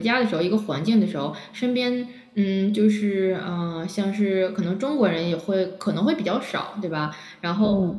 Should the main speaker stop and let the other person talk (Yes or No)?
No